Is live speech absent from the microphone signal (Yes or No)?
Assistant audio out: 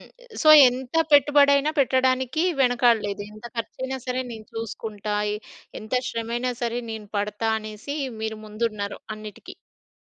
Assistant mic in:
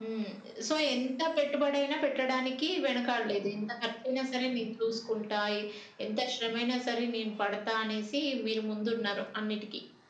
Yes